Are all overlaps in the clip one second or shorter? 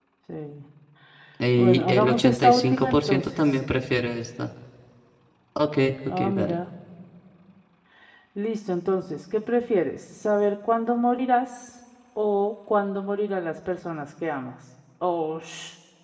No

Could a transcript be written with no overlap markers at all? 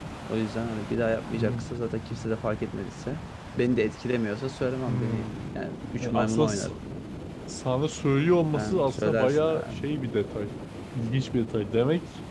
No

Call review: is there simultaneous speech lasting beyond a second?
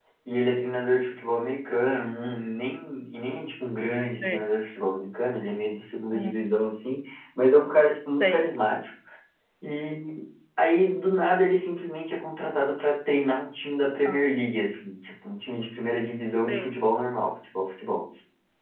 No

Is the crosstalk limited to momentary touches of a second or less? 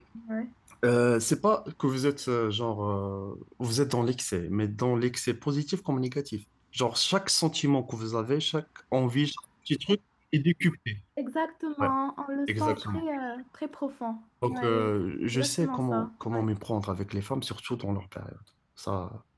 No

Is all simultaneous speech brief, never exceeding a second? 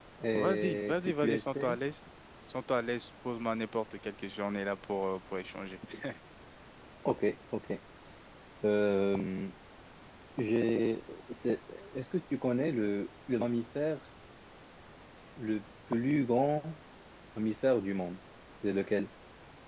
No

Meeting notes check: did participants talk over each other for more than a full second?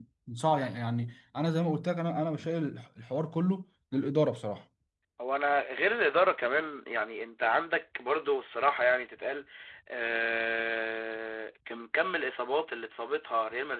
No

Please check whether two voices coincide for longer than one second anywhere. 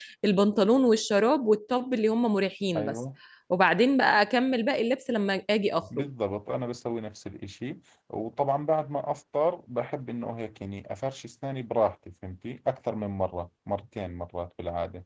No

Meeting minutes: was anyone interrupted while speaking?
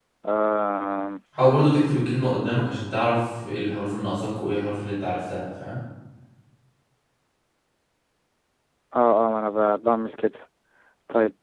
No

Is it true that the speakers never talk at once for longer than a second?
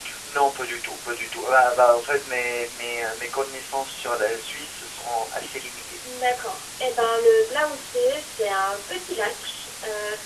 Yes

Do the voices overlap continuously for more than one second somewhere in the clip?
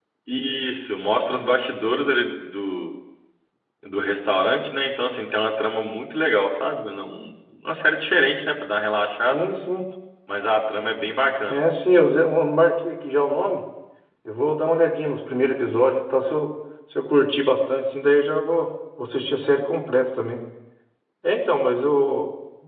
No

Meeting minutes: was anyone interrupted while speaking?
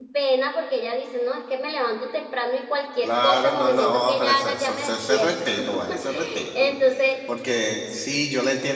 Yes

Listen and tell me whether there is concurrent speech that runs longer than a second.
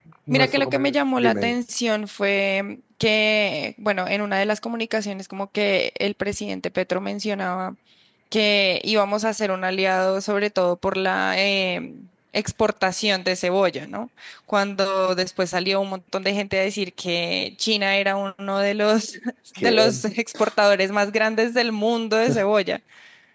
Yes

